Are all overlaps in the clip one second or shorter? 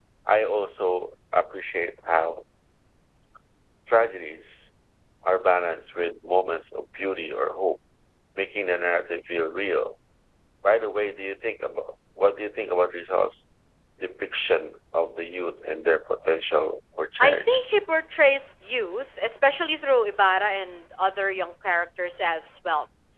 Yes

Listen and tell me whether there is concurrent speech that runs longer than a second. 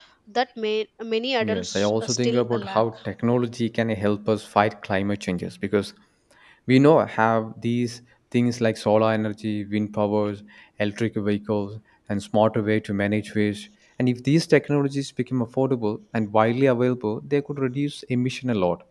Yes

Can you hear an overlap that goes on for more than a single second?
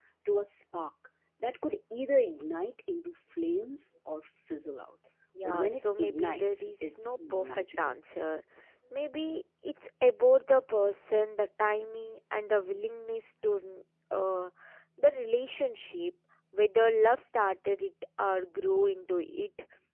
Yes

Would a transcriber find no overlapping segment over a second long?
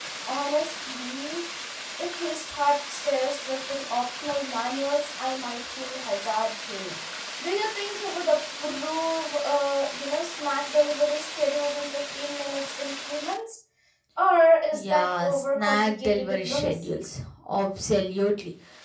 No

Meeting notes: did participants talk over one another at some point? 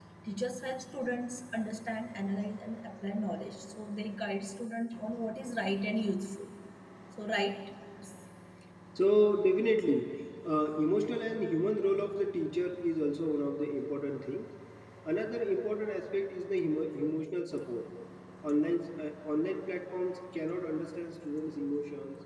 No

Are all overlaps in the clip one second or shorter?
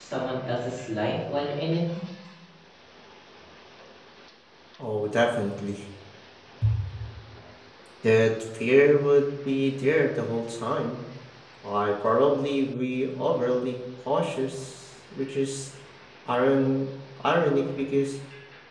Yes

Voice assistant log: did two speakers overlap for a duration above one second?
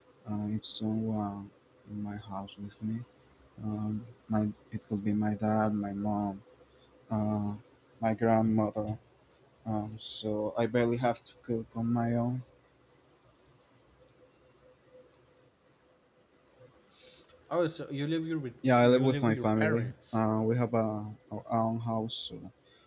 Yes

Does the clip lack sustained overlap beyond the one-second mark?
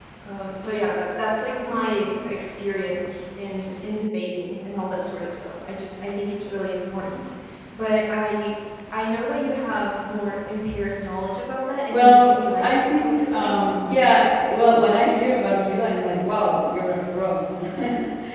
No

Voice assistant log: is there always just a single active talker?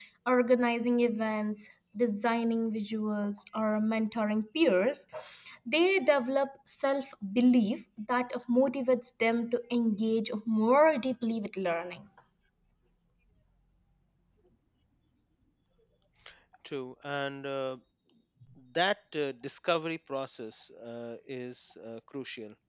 Yes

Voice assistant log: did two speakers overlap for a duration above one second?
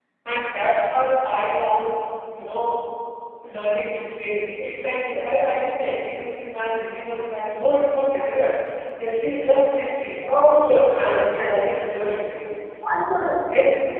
Yes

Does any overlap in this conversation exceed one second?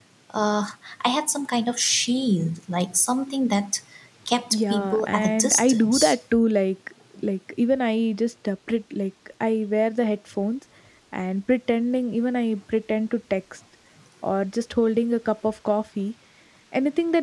Yes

